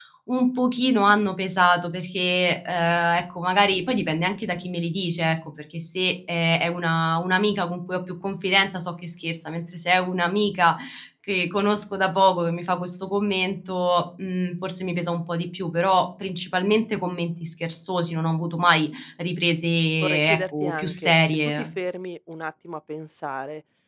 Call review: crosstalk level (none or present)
present